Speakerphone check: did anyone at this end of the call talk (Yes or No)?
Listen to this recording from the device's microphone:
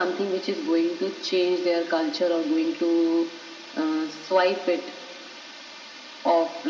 No